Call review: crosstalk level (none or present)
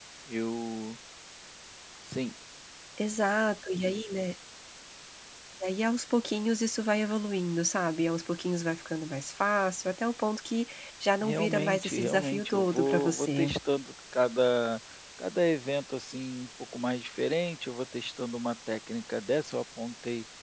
present